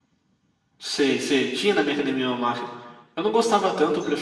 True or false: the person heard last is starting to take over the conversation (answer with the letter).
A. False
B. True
A